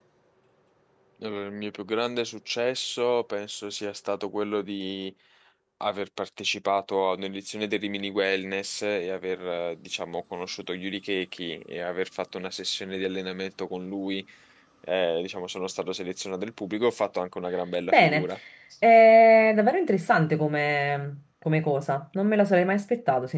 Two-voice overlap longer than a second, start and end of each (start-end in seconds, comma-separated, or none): none